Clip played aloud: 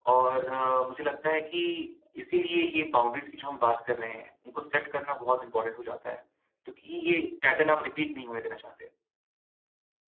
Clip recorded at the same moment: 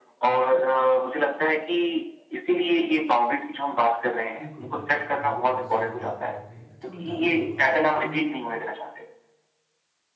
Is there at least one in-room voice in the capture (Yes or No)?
Yes